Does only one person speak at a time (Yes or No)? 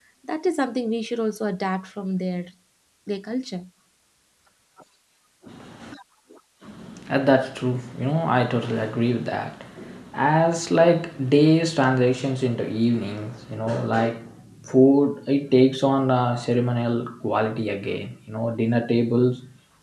Yes